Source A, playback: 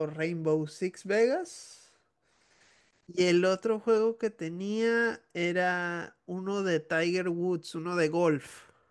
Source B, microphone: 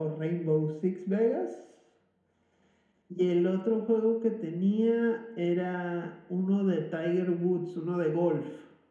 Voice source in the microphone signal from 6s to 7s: echo only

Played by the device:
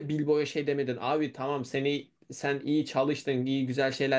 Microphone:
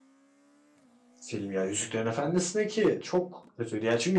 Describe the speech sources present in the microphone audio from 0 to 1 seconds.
neither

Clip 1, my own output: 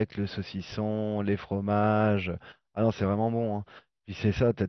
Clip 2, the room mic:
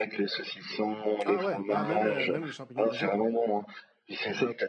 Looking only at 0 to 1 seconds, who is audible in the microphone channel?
echo only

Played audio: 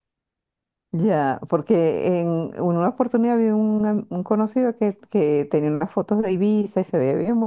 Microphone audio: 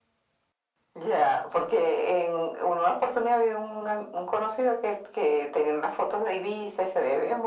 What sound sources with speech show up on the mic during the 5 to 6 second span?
echo only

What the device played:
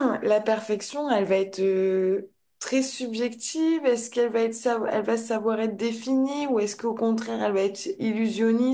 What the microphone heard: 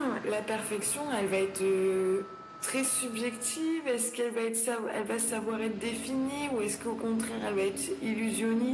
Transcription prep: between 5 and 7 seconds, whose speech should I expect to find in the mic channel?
echo only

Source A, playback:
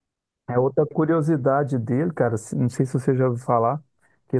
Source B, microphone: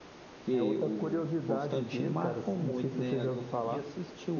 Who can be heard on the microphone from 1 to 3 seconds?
both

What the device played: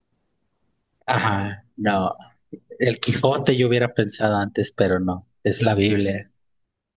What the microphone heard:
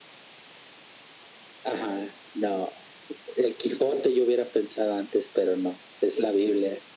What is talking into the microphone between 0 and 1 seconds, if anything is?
neither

